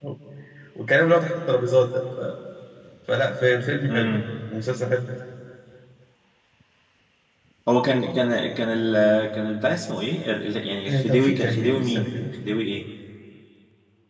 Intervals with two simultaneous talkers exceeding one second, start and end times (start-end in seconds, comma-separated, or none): 10.9-12.2